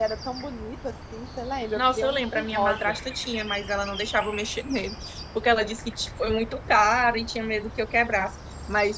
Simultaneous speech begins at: 2 s

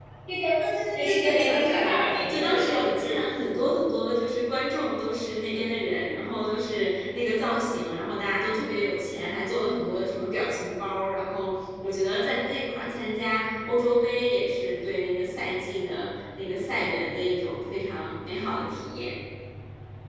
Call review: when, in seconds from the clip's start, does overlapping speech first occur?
1 s

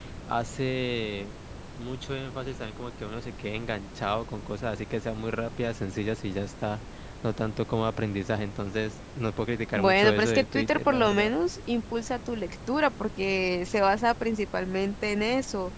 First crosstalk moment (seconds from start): 10 s

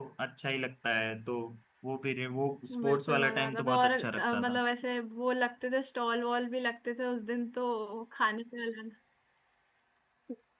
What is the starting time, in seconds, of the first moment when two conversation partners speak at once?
3 s

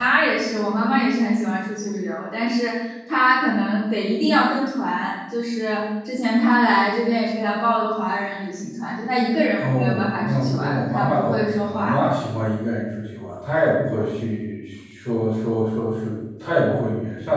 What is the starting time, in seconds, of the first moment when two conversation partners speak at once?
10 s

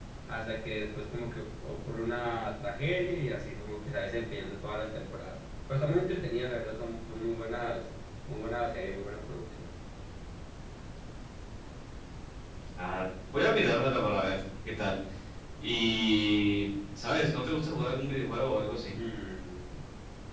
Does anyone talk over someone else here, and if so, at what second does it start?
none

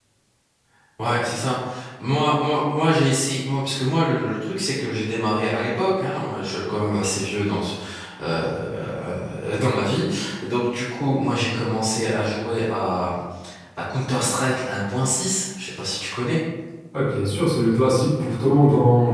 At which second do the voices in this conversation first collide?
none

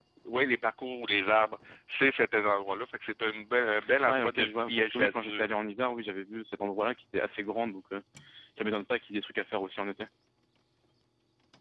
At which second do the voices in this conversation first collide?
4 s

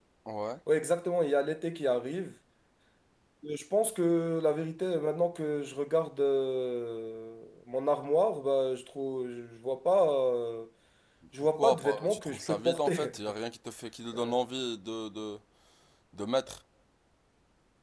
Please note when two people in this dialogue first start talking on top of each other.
12 s

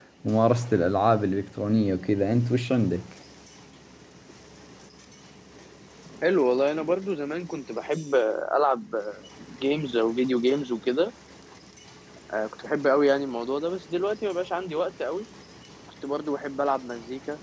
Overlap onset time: none

